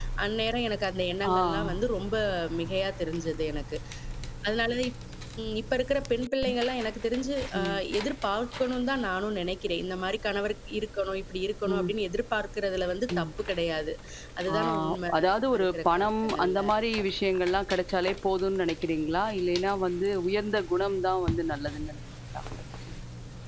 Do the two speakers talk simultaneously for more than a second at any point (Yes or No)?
Yes